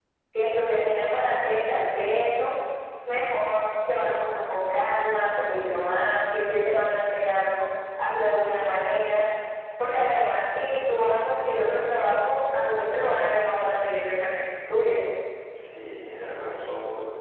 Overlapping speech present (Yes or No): No